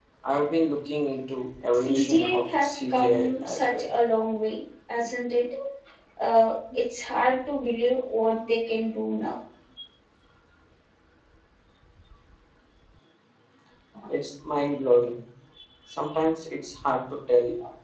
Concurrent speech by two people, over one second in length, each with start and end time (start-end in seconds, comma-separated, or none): 1.7-3.9